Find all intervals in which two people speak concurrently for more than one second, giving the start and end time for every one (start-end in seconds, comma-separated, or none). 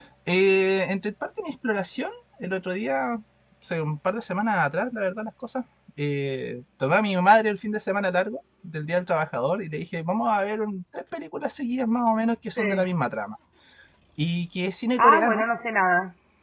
none